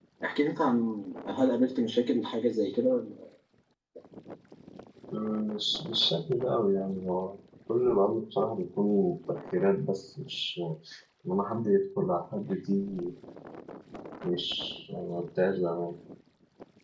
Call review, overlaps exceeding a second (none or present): none